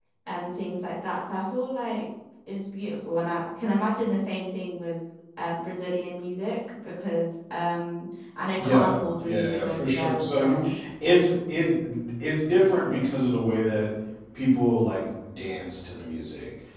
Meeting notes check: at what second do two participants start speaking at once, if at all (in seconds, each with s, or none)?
8.6 s